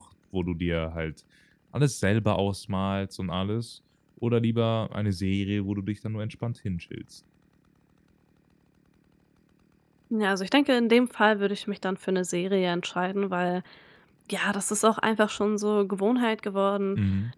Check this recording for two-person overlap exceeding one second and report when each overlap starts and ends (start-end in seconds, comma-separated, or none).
none